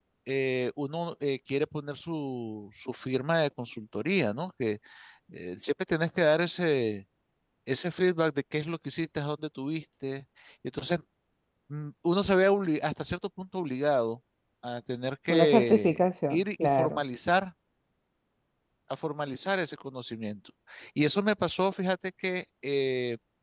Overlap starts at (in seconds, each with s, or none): 15.3 s